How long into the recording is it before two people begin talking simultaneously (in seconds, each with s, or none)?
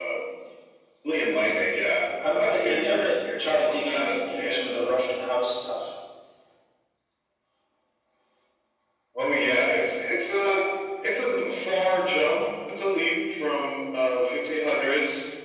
2.2 s